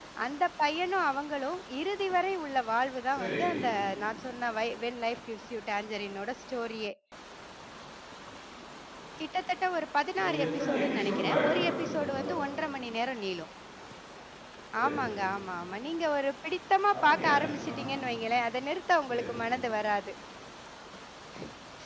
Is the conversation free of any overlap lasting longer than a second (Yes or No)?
No